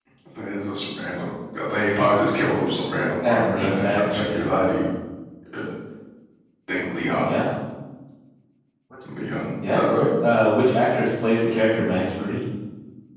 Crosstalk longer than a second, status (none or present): present